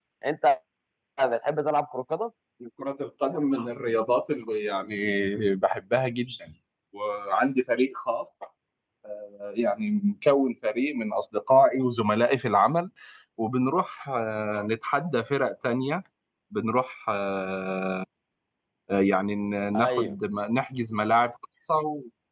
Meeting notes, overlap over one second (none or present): none